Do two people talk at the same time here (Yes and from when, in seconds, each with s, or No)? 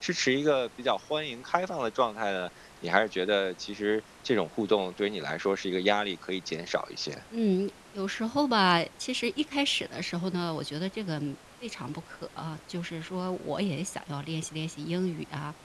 No